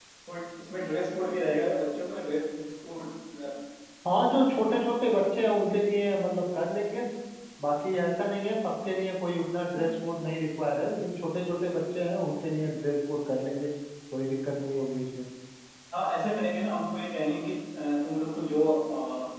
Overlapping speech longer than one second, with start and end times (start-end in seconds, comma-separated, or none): none